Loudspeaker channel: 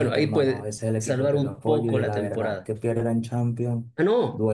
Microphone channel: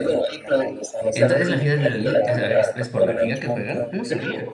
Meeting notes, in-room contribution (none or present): present